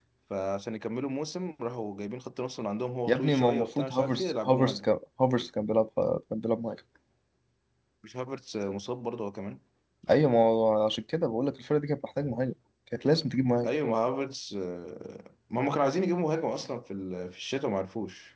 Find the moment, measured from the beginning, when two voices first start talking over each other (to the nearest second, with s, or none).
3 s